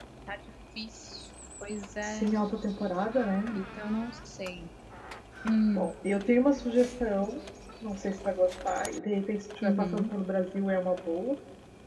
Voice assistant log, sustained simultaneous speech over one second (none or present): none